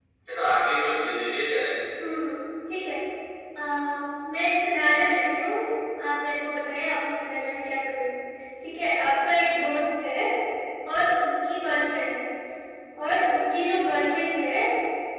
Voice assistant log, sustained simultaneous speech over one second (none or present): none